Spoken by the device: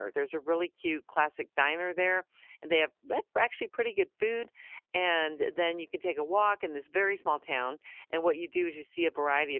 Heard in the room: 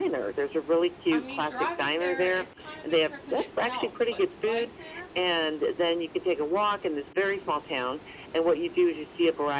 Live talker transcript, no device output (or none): I mean, driving there is kind of a trip in itself, but to bike there